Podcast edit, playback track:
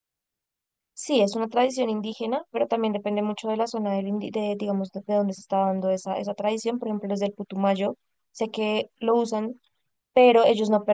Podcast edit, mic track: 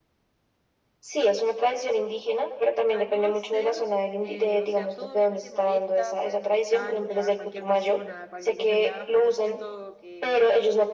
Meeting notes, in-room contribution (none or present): present